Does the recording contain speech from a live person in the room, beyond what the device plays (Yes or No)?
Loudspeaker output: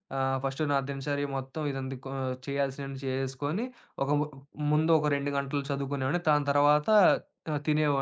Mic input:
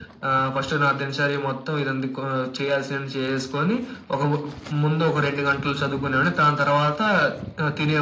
No